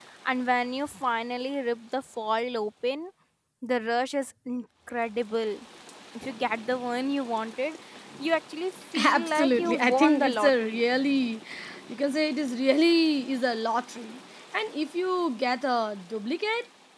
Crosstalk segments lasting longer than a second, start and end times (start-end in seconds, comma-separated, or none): 9.0-10.8